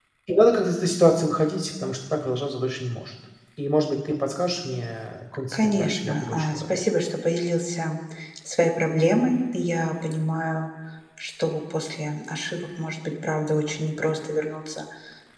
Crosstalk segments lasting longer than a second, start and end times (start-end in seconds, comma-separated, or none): 5.5-6.8